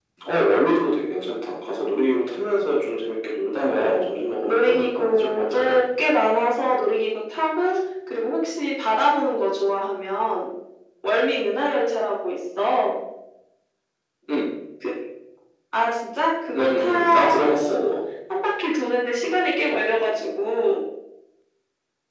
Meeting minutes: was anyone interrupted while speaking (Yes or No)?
Yes